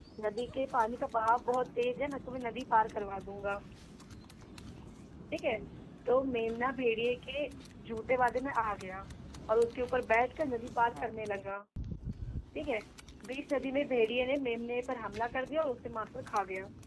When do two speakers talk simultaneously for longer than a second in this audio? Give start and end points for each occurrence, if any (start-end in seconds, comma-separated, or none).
none